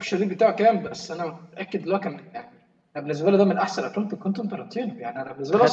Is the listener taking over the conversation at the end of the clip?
No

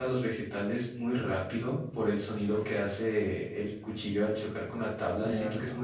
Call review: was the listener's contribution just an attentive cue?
Yes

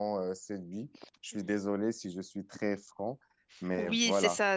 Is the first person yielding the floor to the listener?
Yes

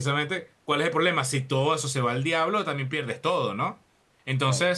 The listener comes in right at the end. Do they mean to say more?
No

